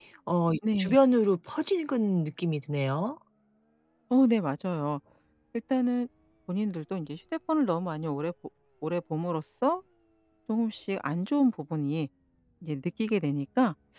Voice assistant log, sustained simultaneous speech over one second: none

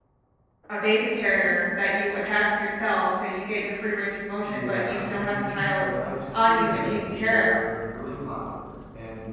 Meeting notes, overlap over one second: present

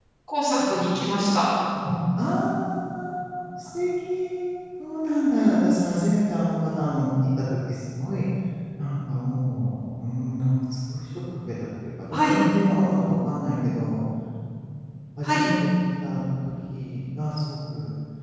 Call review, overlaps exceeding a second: none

